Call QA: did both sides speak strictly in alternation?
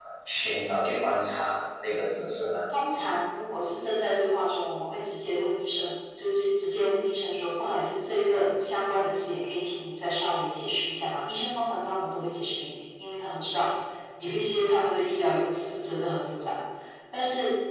Yes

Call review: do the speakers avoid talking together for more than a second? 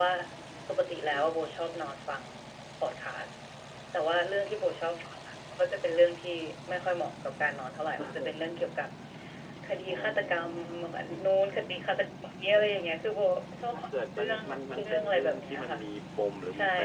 No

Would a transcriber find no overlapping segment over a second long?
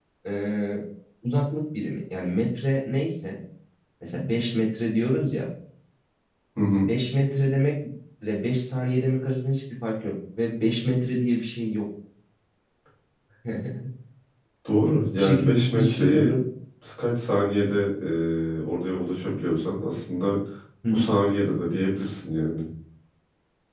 No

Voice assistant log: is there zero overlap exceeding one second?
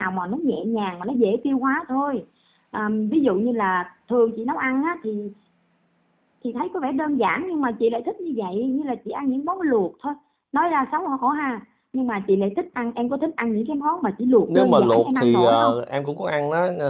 No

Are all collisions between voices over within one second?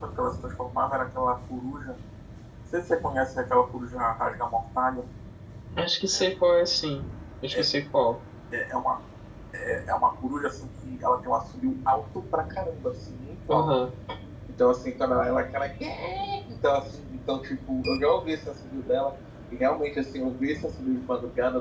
Yes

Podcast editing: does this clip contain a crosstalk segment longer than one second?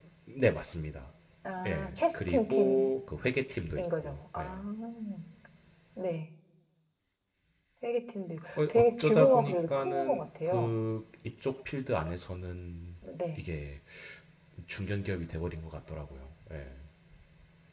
Yes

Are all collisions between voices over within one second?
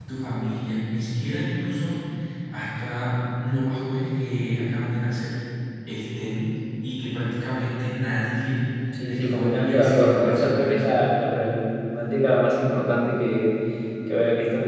No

